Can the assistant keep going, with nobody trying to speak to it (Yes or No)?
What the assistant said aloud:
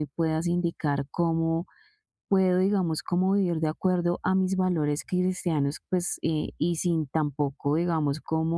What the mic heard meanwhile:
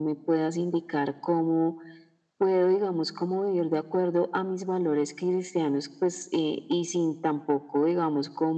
Yes